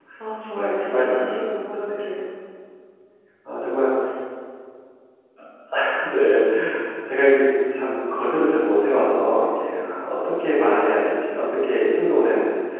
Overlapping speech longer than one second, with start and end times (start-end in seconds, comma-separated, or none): 0.5-1.9